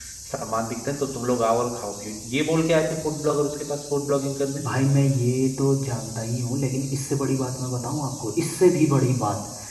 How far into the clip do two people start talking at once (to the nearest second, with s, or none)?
none